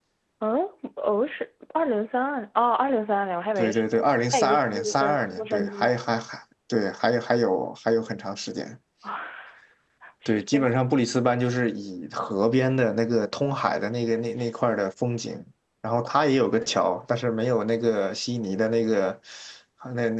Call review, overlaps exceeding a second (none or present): present